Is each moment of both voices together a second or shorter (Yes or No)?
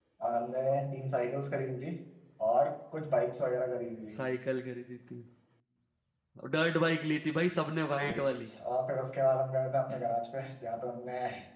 Yes